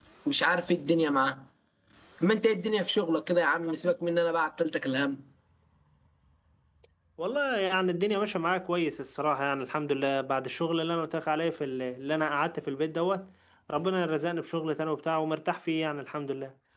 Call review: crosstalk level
none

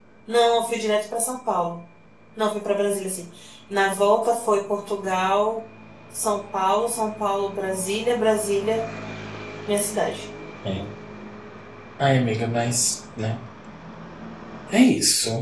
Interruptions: none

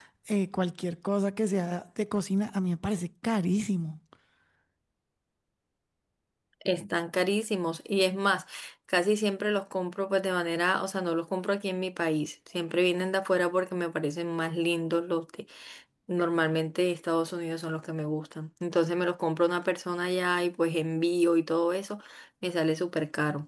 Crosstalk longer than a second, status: none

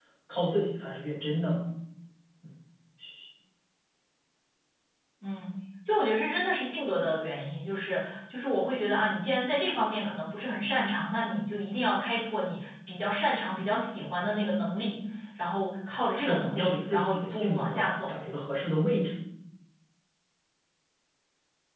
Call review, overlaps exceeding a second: present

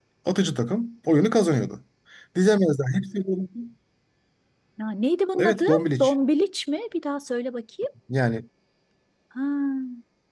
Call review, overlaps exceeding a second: none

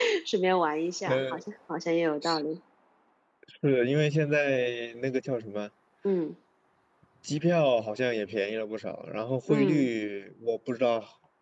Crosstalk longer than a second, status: none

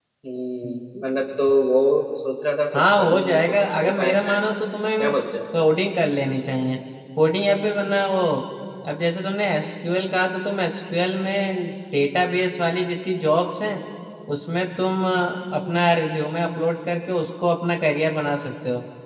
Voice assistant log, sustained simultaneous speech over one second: present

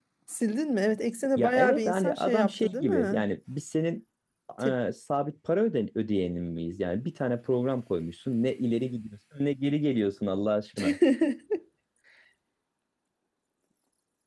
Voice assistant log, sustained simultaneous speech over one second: present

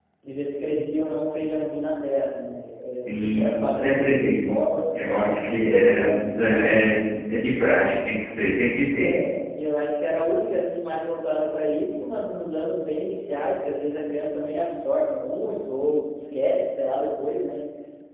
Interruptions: present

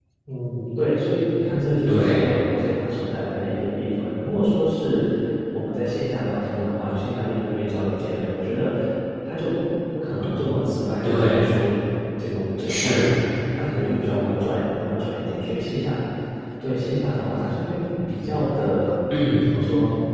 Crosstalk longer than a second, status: none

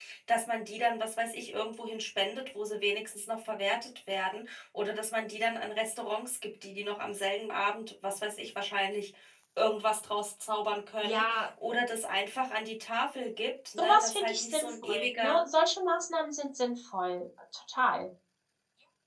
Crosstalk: present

